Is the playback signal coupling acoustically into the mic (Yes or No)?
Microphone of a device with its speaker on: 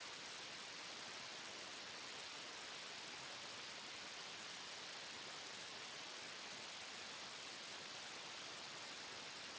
No